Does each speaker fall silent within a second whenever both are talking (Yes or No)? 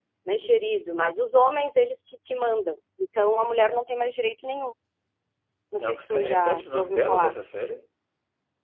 No